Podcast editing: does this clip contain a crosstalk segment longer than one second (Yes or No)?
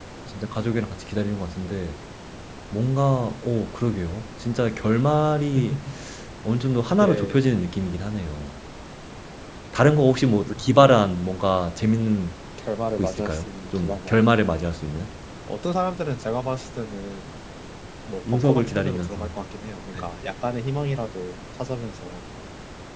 Yes